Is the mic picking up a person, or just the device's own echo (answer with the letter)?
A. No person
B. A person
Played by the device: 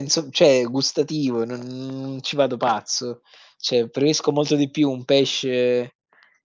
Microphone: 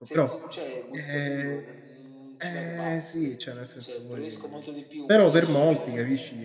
B